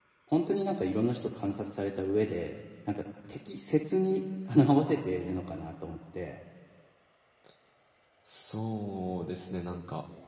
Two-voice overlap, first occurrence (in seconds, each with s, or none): none